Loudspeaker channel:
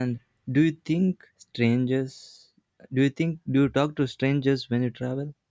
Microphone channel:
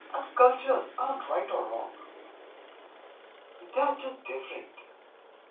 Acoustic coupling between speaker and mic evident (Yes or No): No